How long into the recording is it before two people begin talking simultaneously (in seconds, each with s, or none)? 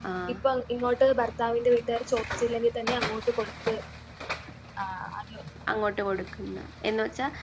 none